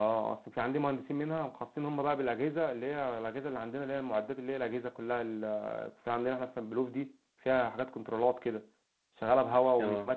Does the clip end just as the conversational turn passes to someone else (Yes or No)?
No